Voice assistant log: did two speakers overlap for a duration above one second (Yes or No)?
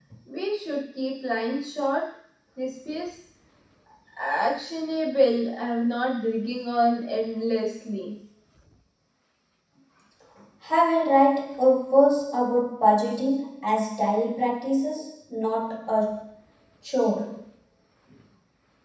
No